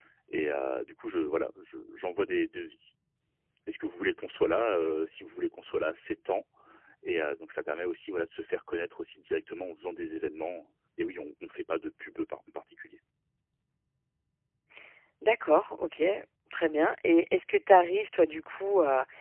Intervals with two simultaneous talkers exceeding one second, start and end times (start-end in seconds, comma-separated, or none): none